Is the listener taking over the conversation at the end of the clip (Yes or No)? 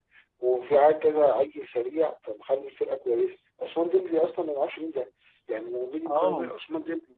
No